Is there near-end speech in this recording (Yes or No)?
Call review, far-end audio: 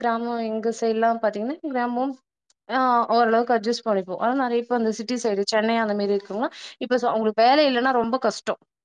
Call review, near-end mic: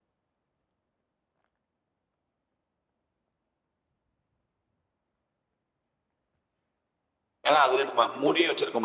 Yes